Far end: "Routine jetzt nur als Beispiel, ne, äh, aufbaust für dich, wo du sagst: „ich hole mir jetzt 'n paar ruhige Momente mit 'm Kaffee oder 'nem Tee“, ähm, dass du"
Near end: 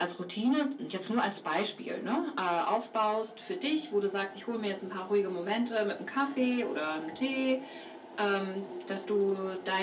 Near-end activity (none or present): none